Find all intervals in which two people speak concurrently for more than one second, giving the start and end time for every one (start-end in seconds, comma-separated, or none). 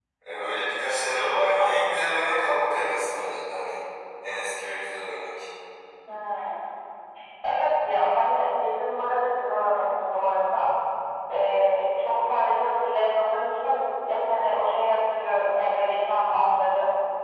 none